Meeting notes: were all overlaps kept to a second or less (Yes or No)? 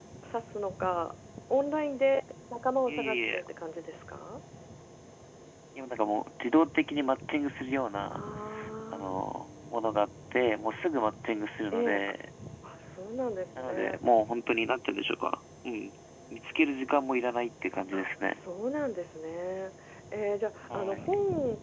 Yes